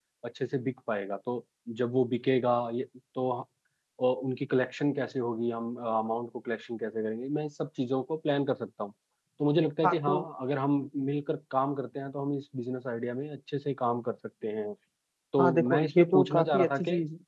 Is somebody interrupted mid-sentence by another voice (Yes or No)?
Yes